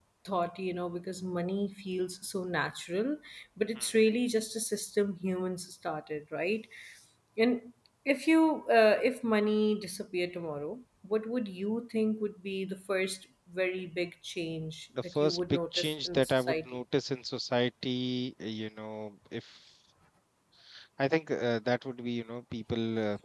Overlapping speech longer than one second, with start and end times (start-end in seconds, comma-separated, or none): 15.1-16.7